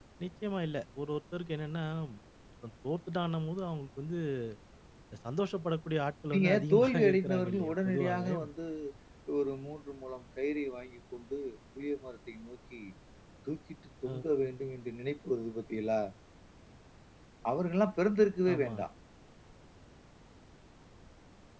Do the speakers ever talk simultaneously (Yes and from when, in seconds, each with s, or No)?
Yes, from 6.3 s